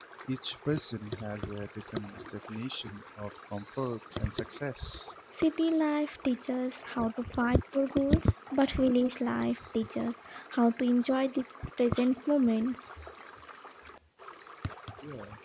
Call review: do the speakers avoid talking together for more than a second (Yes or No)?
Yes